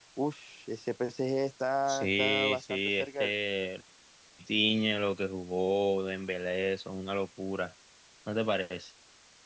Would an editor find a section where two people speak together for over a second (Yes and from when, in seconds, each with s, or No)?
Yes, from 1.9 s